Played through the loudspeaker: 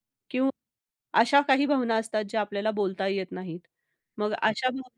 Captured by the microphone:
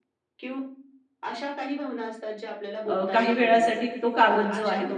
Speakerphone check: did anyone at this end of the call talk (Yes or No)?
Yes